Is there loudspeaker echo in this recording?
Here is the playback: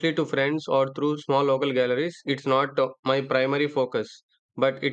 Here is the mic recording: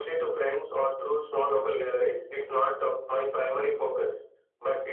Yes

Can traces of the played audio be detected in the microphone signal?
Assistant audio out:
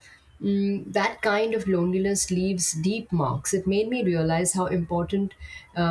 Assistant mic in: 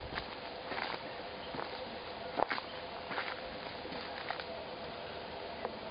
No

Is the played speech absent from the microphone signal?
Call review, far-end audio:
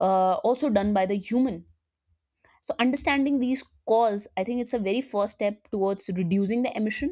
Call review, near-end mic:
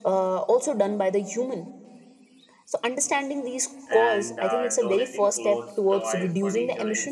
No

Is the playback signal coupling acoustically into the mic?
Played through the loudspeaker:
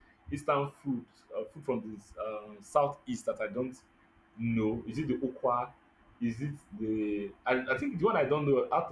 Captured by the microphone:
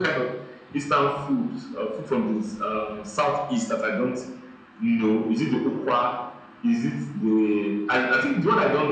Yes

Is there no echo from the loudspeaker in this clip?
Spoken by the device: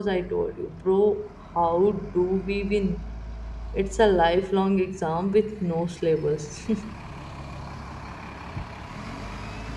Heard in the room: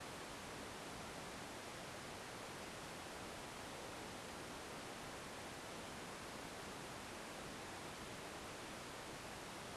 Yes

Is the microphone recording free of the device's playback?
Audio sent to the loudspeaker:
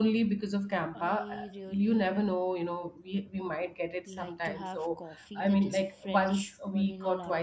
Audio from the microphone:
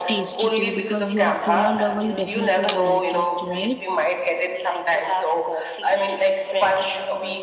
No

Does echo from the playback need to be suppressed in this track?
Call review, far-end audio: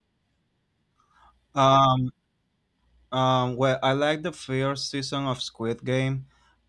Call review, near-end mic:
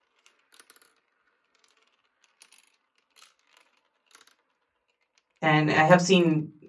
No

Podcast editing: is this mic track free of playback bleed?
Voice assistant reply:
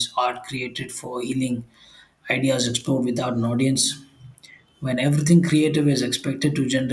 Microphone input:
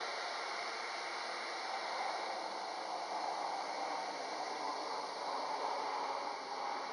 Yes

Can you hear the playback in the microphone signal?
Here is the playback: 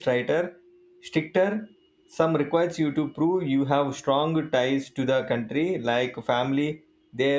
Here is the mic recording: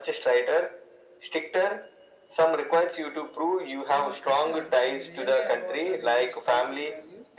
Yes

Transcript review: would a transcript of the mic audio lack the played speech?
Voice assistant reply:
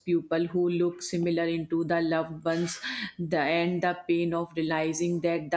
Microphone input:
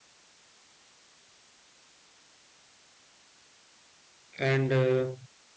Yes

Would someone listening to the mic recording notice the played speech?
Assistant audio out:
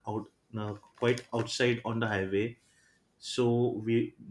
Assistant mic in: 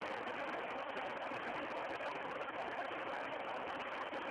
No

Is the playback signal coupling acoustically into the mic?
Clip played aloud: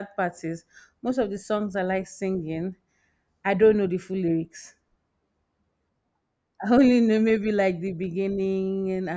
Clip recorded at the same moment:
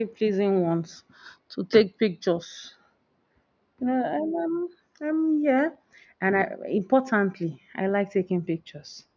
No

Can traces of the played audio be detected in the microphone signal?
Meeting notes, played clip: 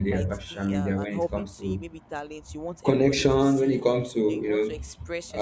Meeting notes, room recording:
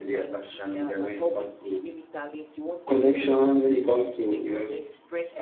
Yes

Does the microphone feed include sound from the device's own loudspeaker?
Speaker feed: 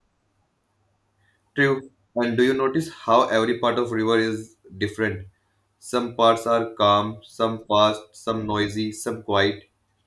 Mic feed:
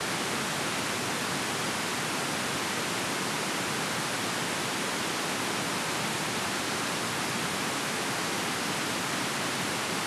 No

